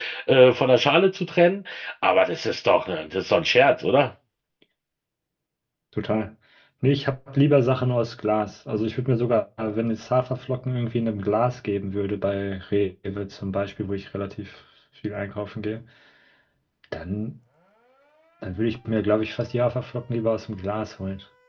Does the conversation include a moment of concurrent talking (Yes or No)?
No